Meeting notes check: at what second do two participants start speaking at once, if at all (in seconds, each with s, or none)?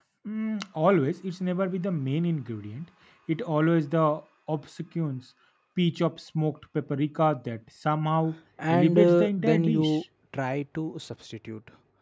8.6 s